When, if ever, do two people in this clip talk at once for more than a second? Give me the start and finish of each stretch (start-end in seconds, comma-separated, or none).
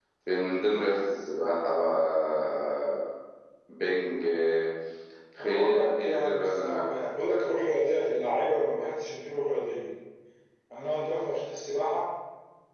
5.4-6.9